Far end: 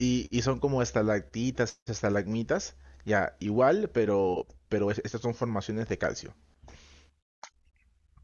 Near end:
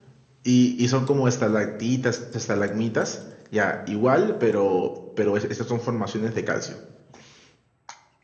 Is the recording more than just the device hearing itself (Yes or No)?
No